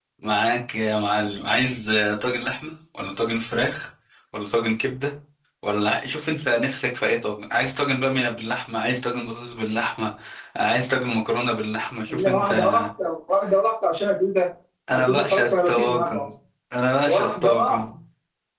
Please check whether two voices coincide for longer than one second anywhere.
Yes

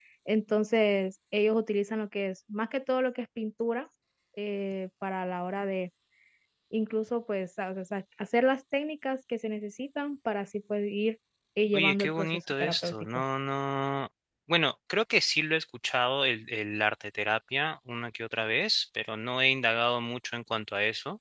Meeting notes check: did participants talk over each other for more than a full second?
Yes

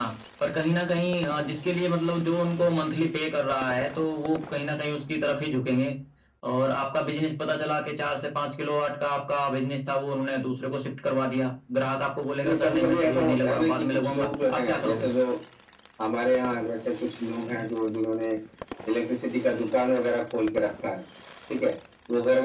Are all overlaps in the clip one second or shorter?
No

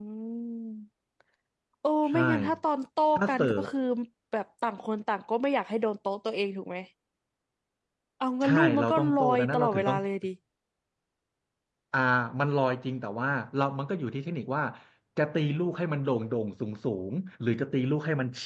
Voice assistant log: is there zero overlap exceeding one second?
No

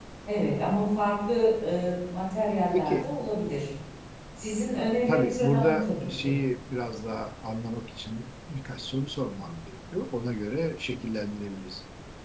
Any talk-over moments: Yes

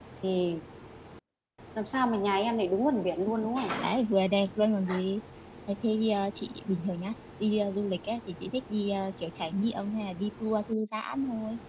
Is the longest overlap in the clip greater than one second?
No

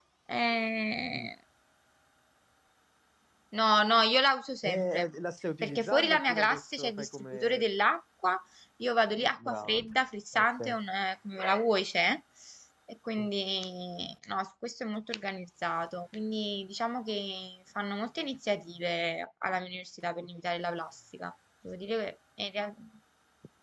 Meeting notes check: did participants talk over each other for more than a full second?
Yes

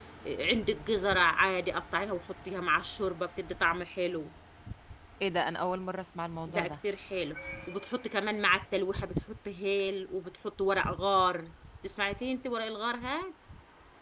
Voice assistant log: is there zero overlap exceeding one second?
Yes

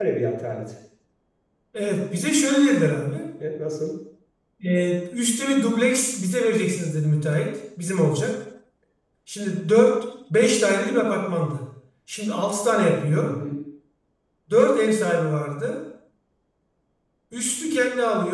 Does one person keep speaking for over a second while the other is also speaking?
No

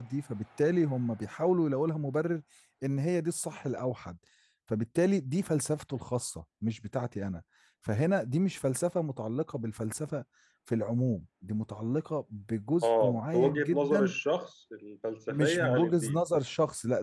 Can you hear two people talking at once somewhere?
Yes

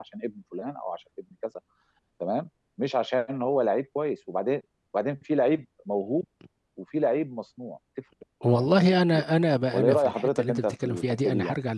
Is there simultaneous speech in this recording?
Yes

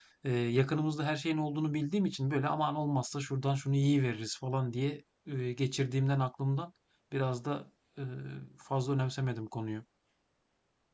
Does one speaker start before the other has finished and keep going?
No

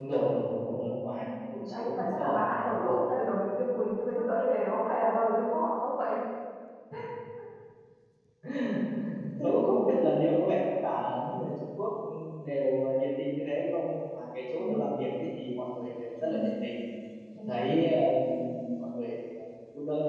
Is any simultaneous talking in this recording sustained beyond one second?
Yes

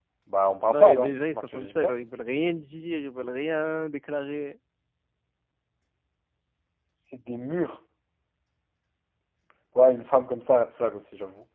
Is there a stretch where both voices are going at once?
Yes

